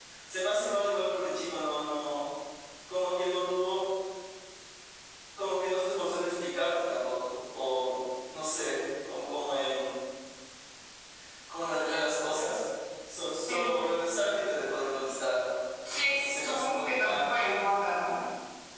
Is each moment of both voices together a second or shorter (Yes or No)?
No